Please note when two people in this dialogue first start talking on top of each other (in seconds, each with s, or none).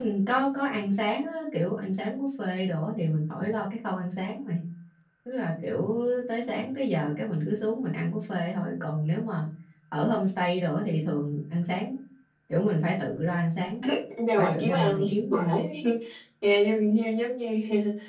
14.4 s